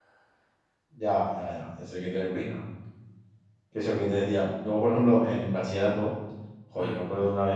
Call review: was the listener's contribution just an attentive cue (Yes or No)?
Yes